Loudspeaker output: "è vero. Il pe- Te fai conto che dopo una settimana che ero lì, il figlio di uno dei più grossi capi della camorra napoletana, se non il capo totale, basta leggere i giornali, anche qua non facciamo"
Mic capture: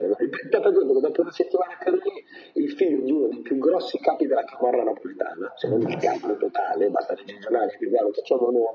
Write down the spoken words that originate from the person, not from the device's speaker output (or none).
fantastico.